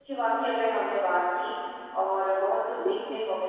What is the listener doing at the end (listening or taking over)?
listening